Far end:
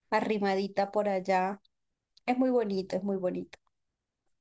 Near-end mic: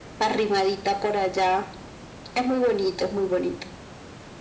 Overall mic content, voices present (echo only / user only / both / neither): echo only